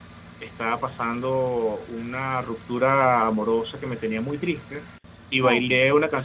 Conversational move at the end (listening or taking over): listening